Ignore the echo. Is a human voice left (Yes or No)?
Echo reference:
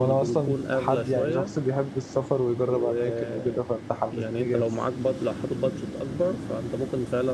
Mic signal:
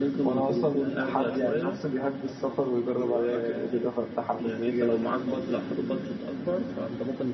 Yes